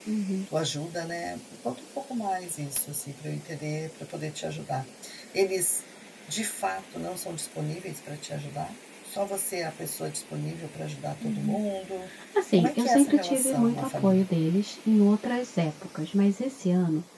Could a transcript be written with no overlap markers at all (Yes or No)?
No